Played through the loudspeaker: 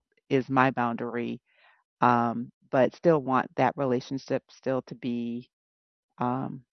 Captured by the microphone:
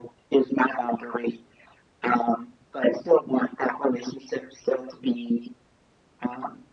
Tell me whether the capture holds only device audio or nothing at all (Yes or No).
Yes